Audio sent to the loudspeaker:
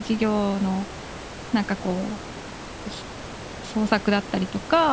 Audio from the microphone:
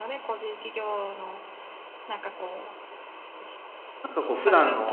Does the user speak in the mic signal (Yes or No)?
Yes